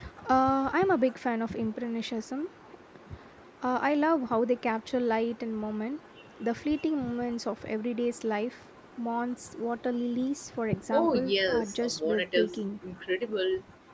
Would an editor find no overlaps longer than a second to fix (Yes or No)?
No